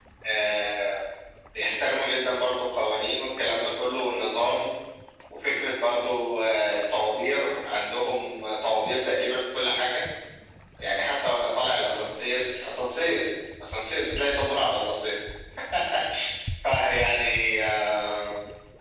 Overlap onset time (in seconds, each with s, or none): none